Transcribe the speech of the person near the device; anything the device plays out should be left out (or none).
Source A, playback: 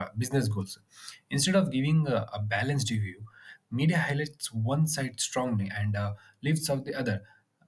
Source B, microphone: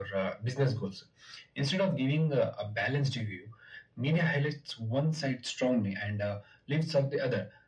none